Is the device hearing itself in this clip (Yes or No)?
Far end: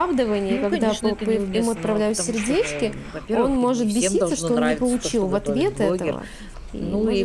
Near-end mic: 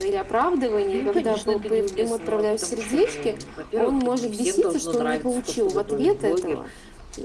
Yes